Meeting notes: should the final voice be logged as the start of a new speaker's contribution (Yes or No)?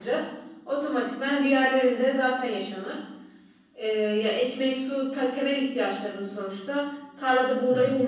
No